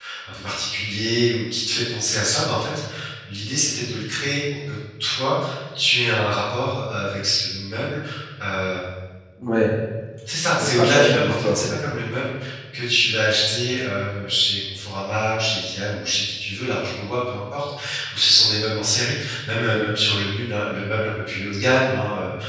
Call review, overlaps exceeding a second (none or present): present